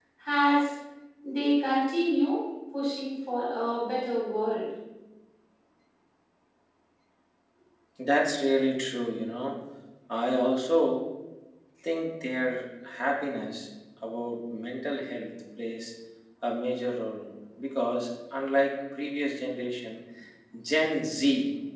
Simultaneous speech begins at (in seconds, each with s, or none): none